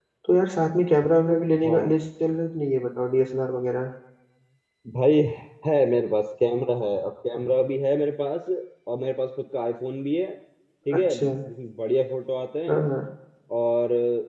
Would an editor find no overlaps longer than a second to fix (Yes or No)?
Yes